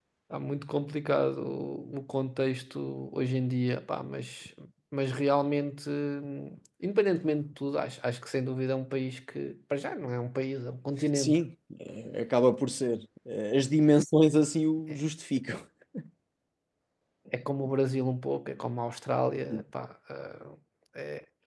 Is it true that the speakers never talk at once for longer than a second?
Yes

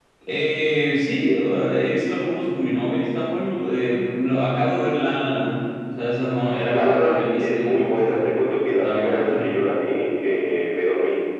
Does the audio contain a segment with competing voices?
Yes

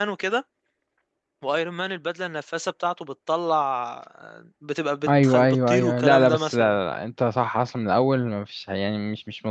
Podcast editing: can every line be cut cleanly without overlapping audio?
No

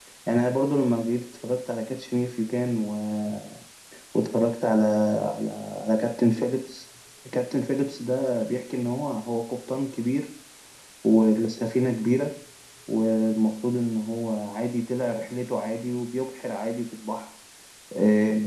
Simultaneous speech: No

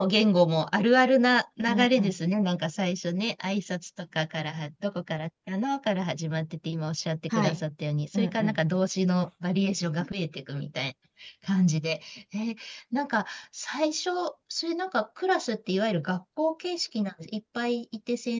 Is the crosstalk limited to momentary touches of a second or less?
Yes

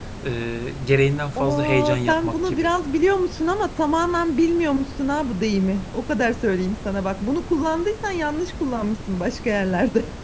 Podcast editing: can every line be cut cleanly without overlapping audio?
No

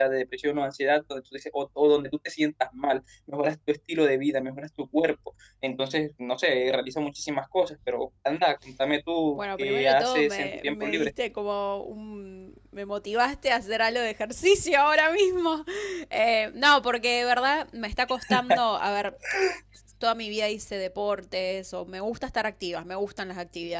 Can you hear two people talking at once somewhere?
Yes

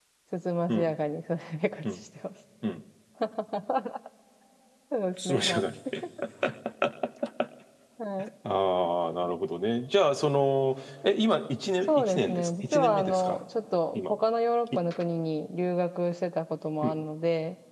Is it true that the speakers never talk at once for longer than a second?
No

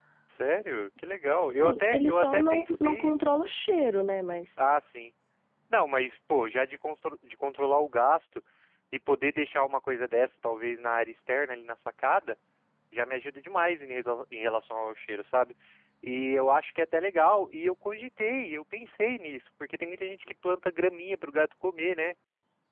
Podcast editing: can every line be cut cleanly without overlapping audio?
No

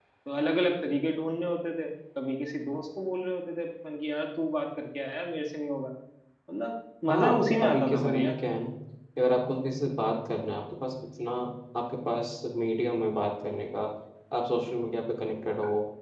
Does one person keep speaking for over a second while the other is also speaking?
Yes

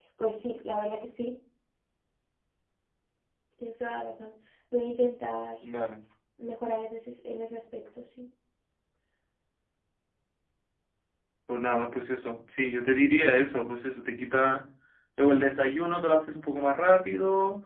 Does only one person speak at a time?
Yes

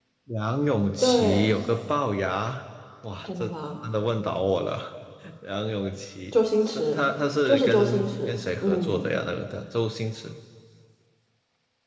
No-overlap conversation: No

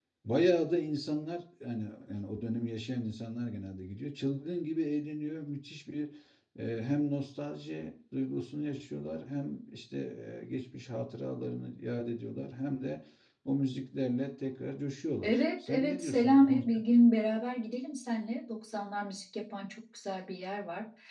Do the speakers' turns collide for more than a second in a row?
Yes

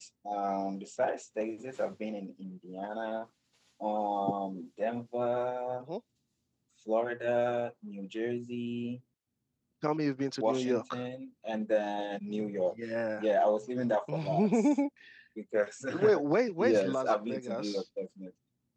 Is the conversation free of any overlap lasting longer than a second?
No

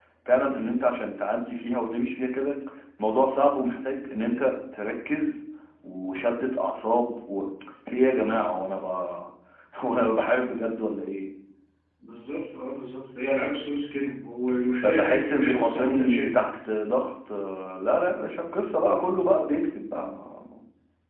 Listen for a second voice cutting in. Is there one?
Yes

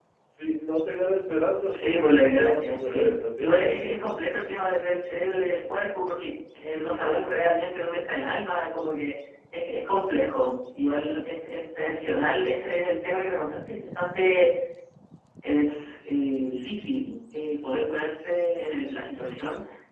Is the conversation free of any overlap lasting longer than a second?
No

